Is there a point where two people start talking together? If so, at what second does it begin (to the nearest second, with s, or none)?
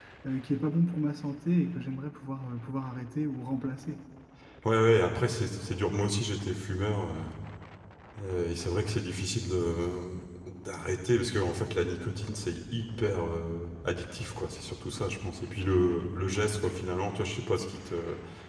none